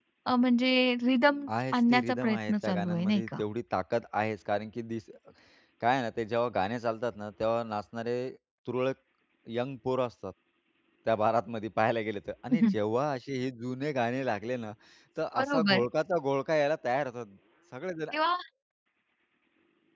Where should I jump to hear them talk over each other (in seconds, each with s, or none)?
1.7 s